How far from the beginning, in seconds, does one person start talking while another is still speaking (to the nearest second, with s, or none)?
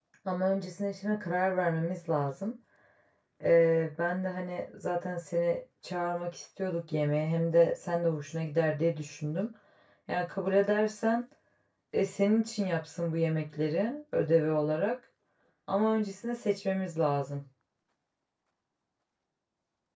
none